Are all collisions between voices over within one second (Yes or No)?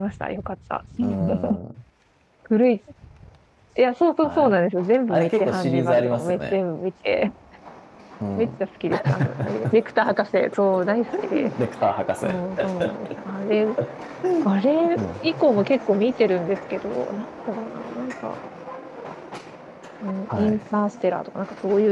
No